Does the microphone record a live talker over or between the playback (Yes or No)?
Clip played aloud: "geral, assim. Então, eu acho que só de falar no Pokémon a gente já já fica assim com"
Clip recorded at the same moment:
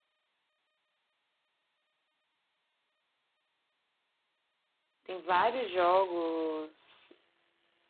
Yes